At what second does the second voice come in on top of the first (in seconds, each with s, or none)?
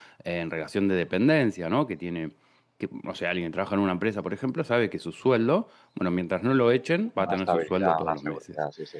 7.2 s